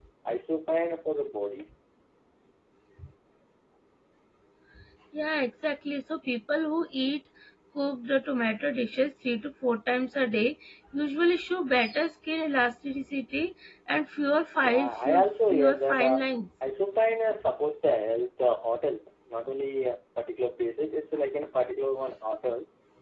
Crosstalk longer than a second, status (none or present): present